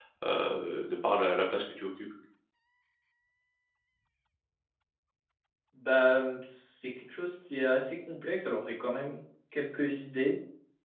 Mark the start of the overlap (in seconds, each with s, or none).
none